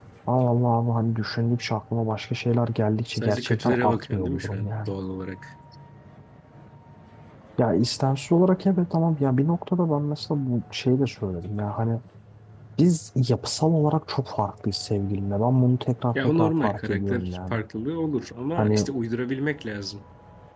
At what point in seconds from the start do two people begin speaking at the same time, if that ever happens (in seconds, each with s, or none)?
3.1 s